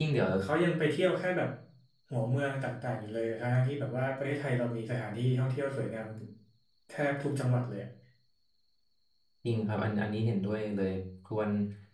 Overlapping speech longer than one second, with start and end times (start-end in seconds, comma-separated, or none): none